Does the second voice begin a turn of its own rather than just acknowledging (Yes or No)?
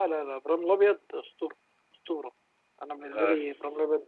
No